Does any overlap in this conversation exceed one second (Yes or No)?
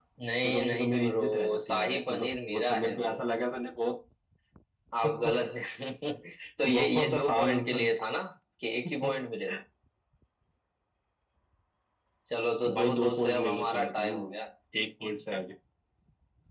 Yes